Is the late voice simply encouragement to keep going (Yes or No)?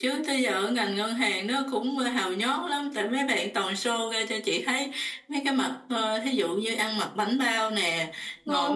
Yes